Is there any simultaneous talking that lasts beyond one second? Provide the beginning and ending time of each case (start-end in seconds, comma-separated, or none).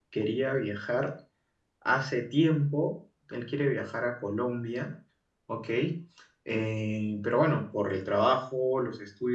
none